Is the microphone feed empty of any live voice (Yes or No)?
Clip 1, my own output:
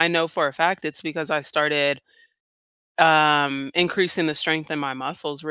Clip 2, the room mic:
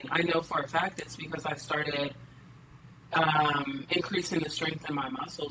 Yes